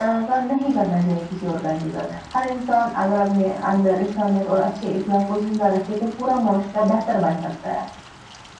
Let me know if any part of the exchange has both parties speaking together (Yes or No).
No